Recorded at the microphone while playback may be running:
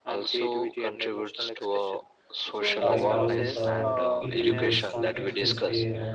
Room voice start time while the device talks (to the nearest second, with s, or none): 3 s